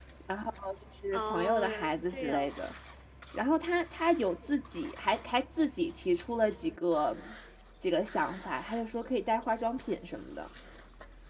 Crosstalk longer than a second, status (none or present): present